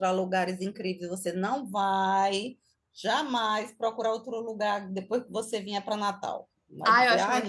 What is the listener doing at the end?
taking over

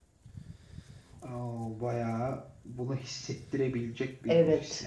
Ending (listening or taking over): taking over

